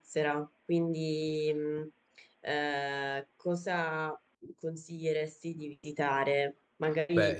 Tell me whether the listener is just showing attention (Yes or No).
Yes